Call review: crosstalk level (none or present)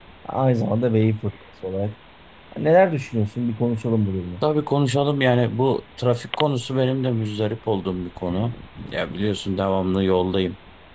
none